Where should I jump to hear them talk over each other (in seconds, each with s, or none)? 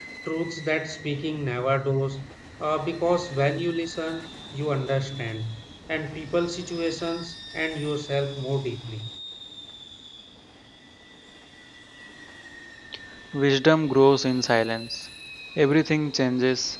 none